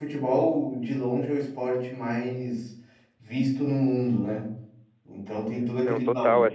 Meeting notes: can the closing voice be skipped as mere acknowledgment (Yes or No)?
No